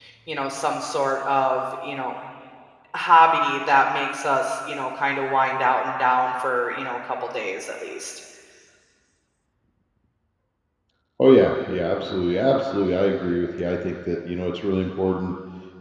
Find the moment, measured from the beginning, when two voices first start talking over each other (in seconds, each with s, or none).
none